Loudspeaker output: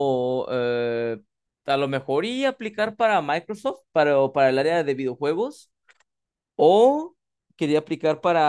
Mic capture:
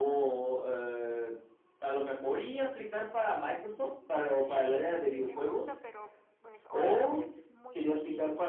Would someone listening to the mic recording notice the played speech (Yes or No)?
Yes